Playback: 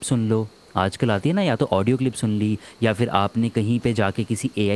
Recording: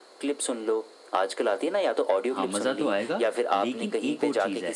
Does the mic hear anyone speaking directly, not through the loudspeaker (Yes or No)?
Yes